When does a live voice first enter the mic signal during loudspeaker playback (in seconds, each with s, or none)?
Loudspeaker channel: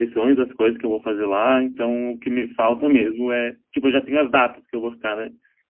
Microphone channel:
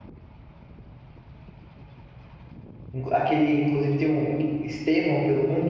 2.9 s